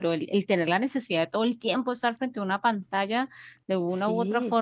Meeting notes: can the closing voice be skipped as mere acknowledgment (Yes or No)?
Yes